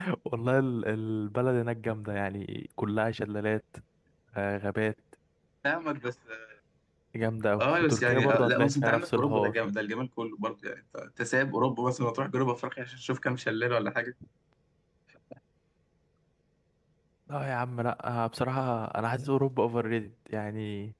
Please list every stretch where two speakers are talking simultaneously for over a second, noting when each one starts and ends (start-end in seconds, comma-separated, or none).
7.6-9.7